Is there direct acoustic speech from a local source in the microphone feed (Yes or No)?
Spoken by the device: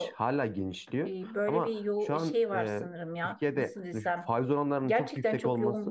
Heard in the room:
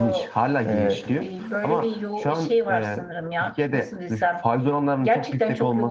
Yes